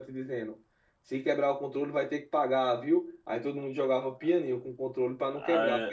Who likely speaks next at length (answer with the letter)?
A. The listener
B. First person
B